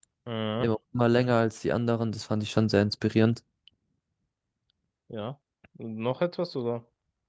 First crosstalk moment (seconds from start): none

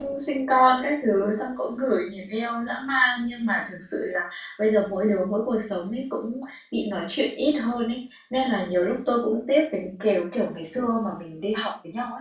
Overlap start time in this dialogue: none

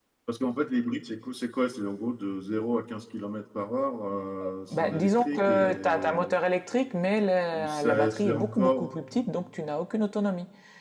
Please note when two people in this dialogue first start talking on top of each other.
4.7 s

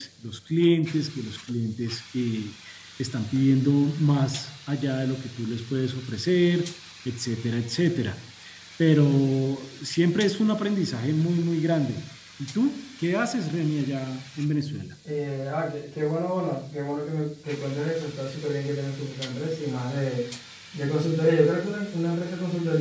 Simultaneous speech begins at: none

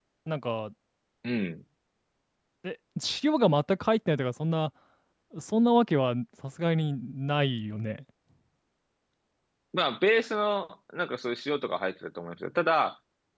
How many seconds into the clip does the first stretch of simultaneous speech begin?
none

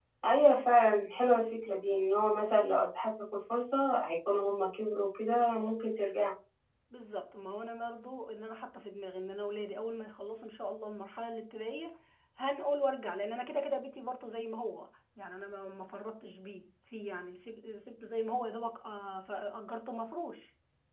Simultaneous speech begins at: none

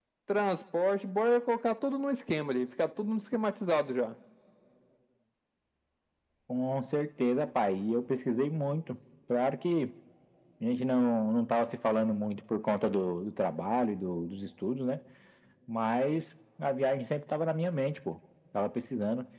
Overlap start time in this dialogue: none

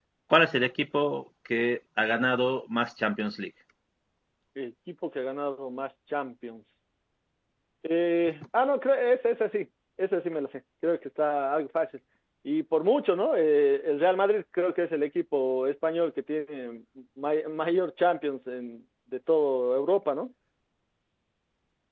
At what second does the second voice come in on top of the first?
none

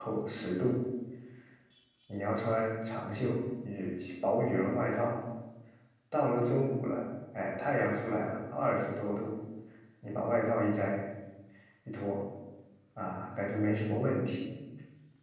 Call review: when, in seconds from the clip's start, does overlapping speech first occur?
none

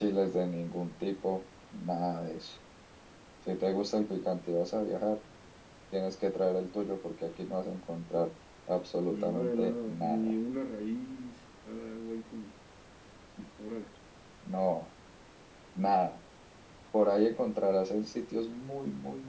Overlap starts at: 9.0 s

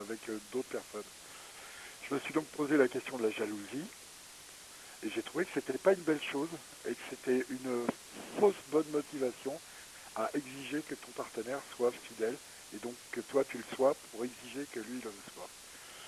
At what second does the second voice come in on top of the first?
none

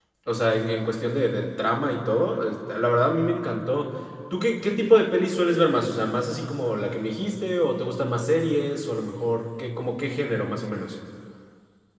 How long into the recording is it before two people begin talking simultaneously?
none

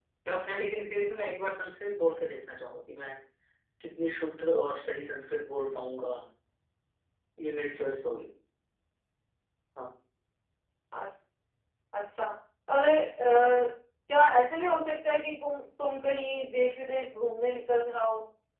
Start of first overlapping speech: none

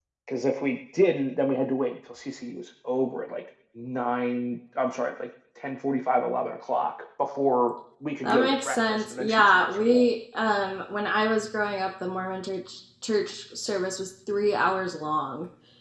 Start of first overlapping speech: 8.2 s

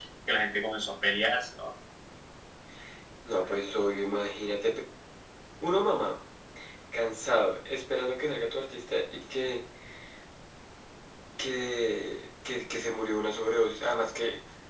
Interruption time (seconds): none

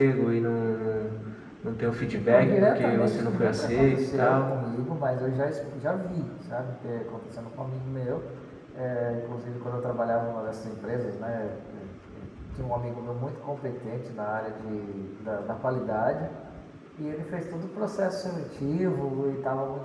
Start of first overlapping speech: 2.1 s

